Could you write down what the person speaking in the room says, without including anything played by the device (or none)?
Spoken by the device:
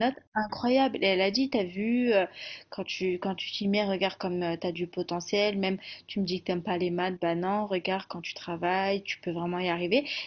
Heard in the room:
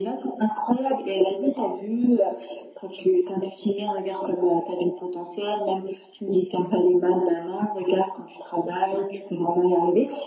none